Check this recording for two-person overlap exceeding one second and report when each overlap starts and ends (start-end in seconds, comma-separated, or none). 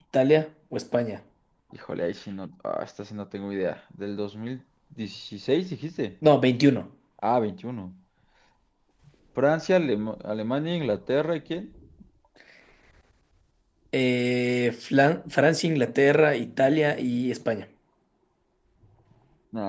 15.8-17.0